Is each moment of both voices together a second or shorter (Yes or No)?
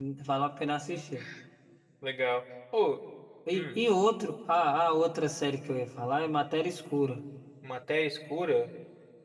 Yes